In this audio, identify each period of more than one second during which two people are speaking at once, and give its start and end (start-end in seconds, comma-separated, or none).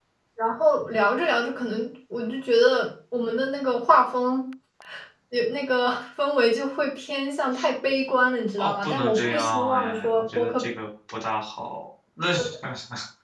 8.6-10.6